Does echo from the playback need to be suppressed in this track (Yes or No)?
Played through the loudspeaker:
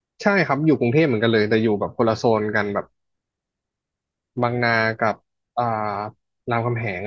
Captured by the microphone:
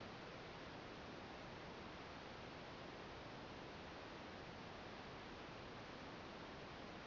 No